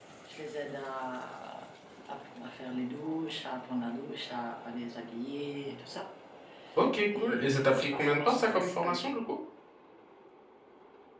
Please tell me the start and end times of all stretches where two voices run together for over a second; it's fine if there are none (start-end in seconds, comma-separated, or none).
7.2-9.0